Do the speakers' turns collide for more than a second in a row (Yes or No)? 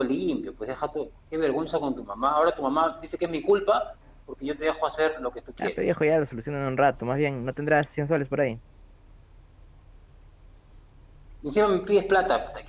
No